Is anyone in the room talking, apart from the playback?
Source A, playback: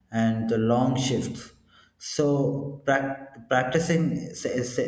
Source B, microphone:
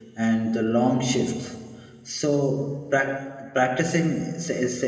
No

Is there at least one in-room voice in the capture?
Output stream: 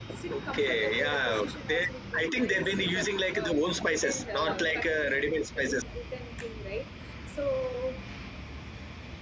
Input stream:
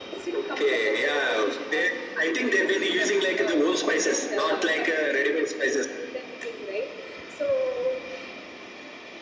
No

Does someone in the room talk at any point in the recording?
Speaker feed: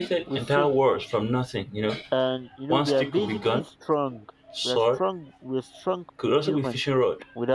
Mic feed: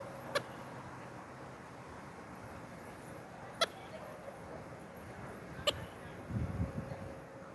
No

